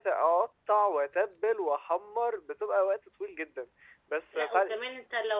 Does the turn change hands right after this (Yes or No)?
Yes